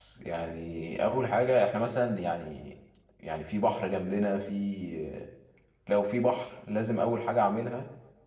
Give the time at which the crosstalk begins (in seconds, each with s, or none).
none